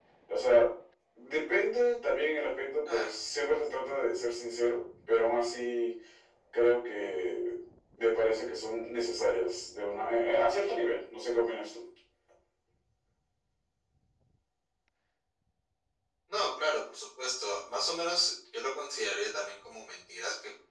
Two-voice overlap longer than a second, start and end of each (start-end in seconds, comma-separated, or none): none